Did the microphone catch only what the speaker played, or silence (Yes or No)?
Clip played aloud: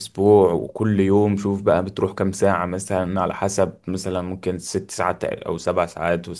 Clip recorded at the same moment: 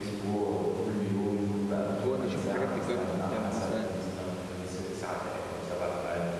No